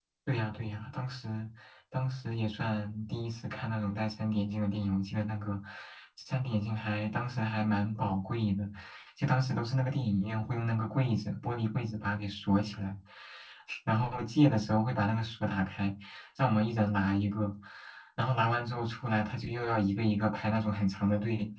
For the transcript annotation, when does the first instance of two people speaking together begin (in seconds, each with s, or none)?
none